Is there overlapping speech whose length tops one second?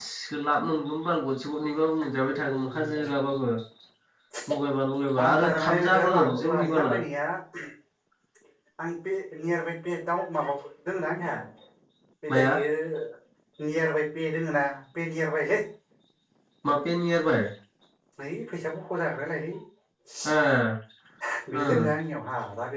Yes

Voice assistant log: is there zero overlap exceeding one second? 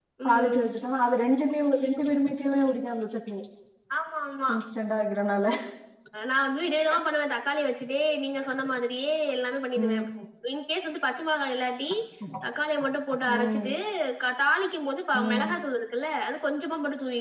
Yes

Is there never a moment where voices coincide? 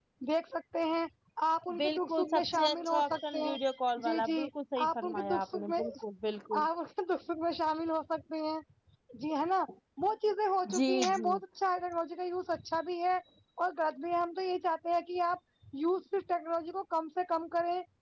No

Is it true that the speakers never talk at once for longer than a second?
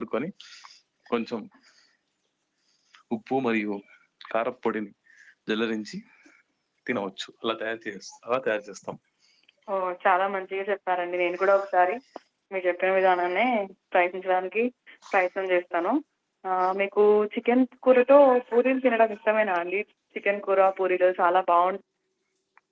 Yes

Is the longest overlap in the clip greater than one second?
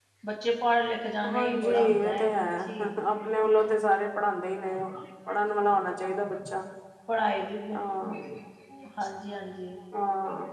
Yes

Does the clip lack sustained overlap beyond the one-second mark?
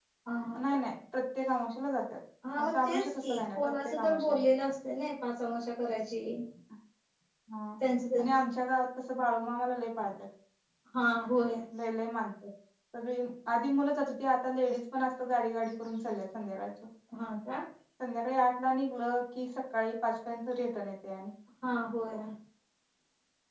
No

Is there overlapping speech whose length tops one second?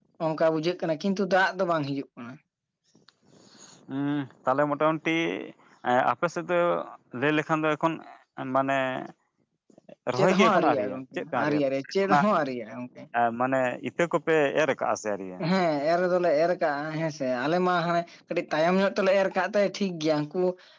Yes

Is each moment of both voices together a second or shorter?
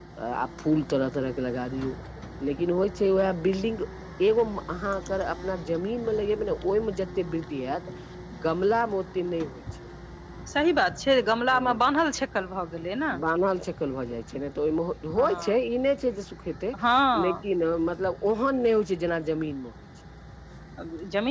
Yes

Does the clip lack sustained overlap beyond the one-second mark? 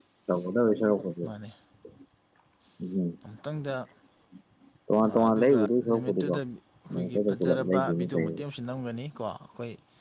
No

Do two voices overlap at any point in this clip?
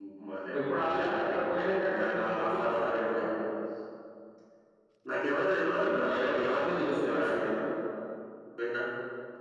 Yes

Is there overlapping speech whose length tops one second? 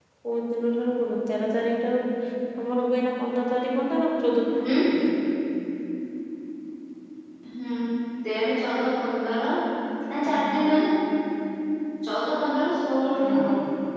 No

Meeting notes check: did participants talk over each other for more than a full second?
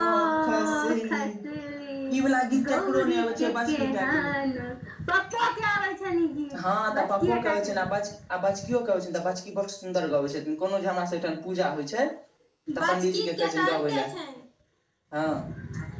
Yes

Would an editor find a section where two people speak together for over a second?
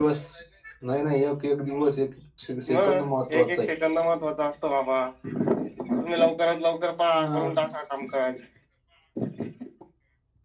No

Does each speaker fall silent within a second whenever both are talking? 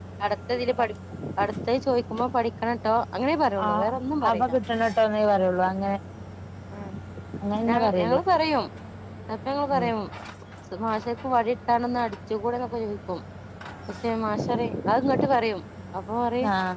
Yes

